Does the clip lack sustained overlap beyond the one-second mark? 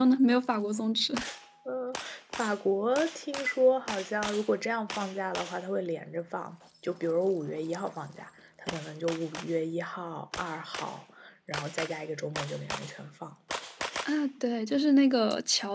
Yes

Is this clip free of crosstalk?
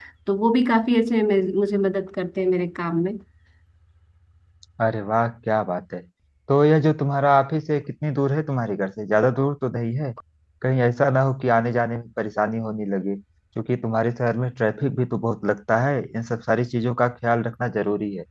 Yes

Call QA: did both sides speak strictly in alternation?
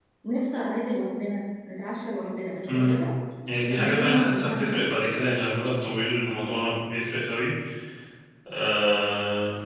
No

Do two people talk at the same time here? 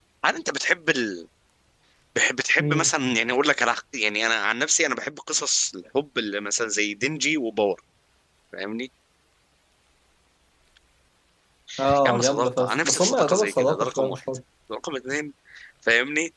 Yes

